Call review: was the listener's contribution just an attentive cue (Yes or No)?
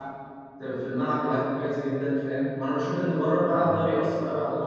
Yes